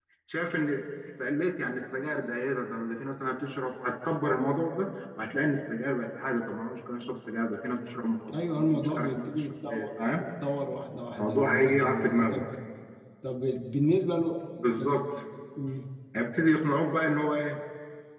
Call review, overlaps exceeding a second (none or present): present